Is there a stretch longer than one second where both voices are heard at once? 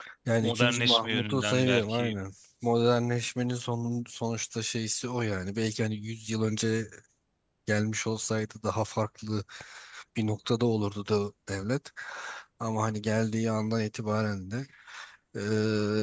Yes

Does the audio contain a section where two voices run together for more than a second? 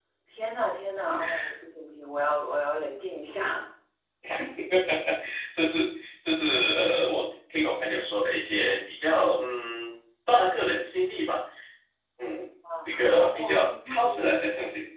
Yes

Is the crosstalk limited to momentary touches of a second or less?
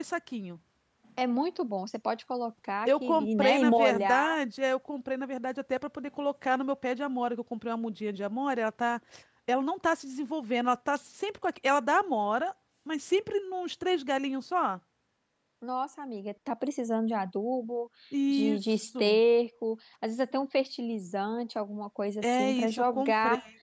No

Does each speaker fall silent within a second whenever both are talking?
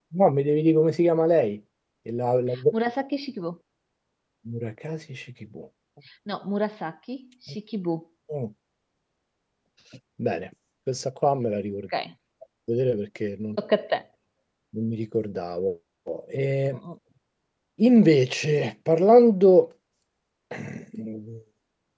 Yes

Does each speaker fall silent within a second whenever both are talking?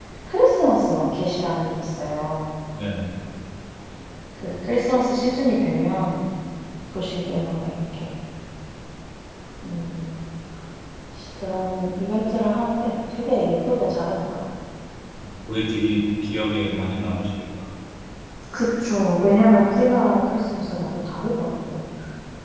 Yes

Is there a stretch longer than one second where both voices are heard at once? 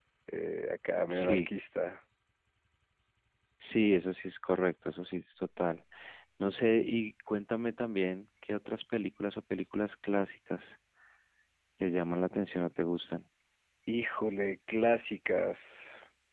No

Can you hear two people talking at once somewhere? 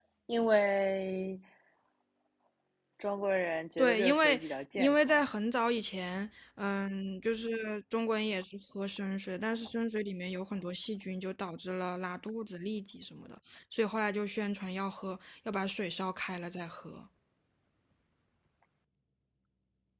Yes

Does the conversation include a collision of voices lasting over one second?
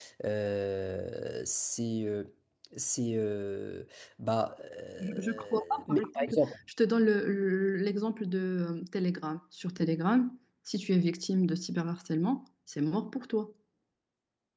Yes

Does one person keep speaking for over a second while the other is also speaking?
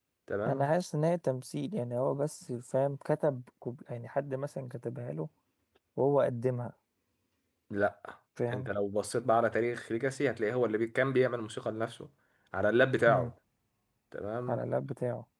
No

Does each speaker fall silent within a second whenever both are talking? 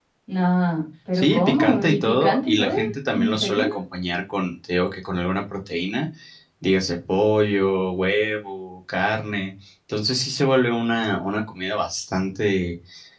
No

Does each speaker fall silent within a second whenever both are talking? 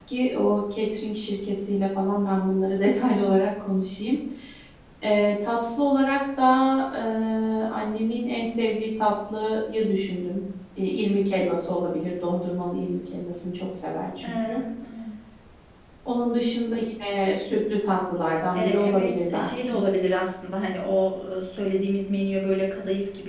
No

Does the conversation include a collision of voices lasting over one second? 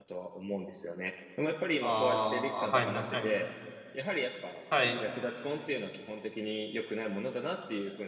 Yes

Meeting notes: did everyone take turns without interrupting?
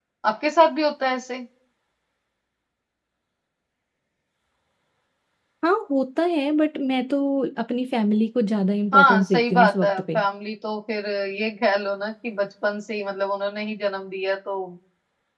No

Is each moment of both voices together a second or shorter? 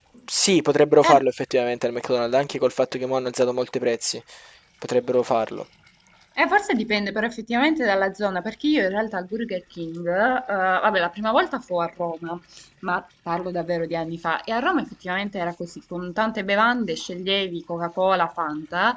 Yes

